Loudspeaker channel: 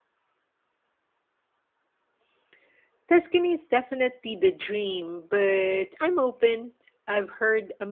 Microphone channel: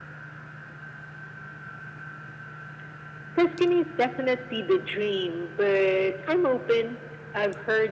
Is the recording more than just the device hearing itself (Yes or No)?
No